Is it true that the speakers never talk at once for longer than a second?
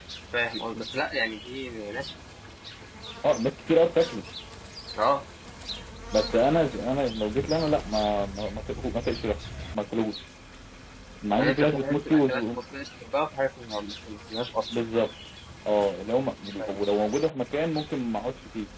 No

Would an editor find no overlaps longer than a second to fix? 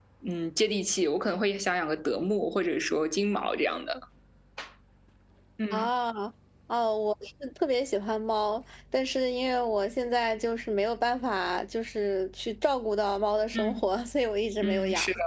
Yes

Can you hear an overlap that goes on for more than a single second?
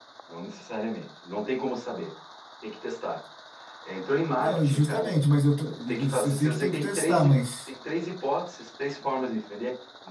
Yes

